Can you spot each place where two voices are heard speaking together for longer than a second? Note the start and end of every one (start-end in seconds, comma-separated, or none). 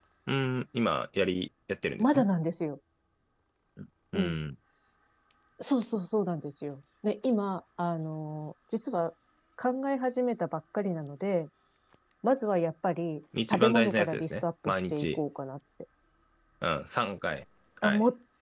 13.5-15.2